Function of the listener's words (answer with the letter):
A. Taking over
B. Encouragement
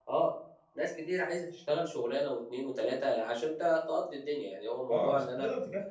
A